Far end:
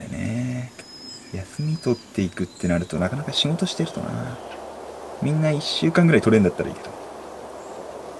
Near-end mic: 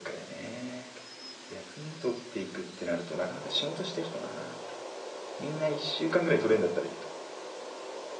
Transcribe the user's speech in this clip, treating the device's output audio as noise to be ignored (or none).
none